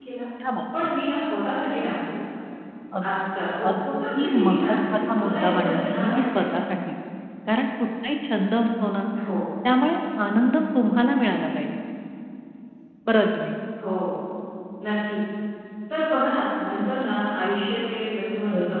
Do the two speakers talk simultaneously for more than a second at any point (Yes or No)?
Yes